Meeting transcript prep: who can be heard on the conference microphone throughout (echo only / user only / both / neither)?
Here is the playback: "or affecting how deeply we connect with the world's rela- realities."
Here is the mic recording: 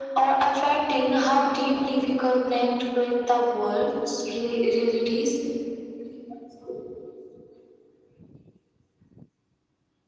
echo only